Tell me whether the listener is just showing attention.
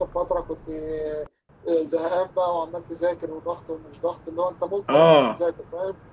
Yes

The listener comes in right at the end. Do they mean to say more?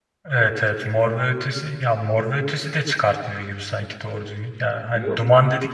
No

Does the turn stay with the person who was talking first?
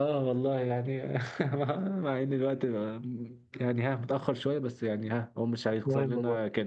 Yes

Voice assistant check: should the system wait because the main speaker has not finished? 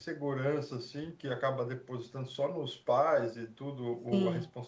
Yes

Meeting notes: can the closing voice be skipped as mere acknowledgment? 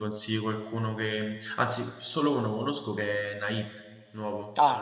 No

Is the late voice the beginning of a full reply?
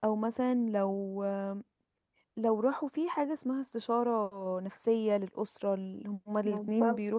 No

